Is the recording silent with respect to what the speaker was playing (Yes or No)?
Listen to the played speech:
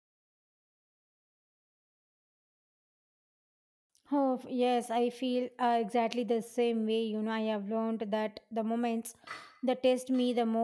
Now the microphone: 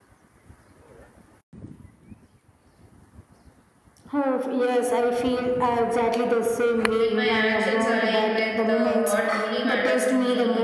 No